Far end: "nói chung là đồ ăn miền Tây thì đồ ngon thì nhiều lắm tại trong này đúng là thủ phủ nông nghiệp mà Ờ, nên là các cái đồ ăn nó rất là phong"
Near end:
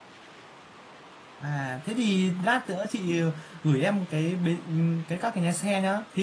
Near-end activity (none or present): present